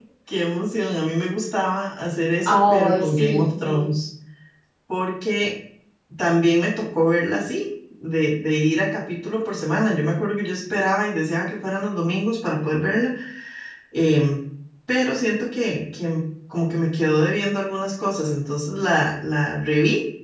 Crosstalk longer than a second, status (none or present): present